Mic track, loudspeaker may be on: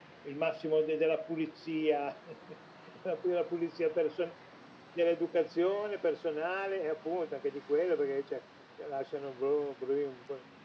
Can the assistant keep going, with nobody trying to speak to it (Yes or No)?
Yes